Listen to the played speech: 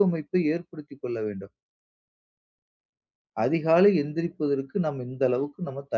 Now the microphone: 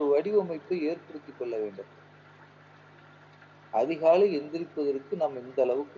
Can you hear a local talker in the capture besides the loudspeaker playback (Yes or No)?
No